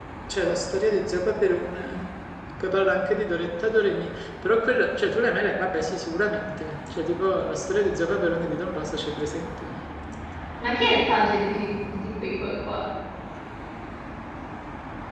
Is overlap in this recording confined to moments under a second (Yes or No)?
Yes